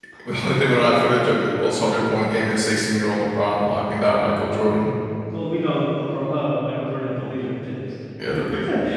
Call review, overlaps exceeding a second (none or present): none